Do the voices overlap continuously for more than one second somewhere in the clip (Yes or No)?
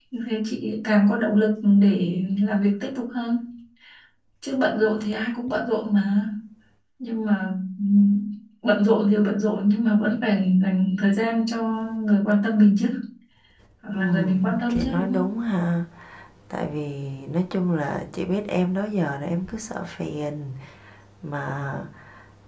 Yes